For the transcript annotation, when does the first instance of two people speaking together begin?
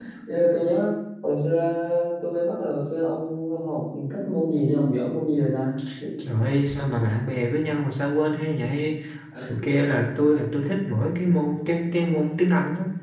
none

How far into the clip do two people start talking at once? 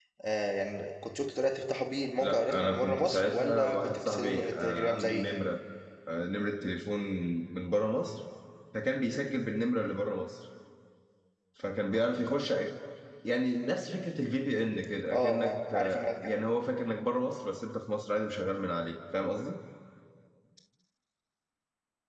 2.2 s

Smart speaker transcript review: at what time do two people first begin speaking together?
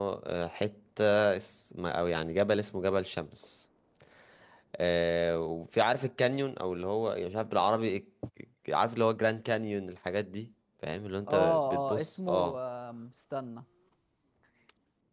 11.3 s

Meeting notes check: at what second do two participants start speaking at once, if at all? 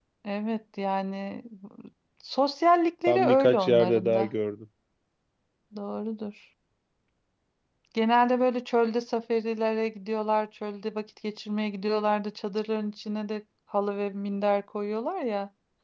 3.1 s

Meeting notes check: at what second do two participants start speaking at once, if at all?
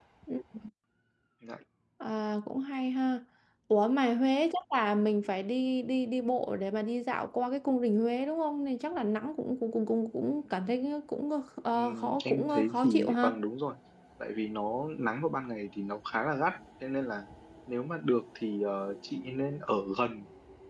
11.7 s

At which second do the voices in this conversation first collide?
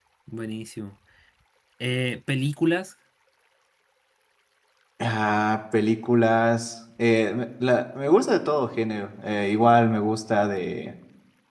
none

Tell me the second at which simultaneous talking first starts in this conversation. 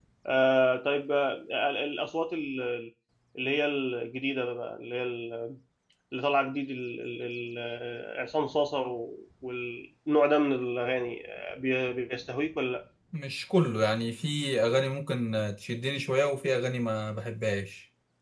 none

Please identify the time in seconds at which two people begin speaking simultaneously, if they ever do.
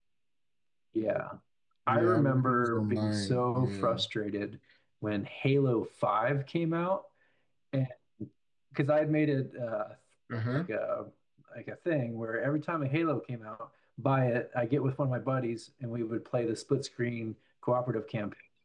1.9 s

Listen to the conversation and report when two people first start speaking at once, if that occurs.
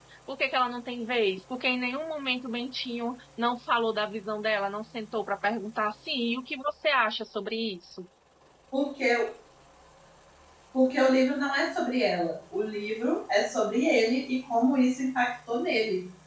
none

